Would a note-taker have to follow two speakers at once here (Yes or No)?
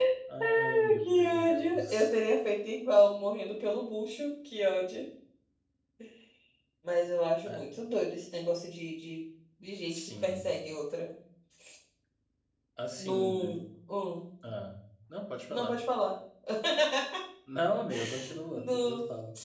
Yes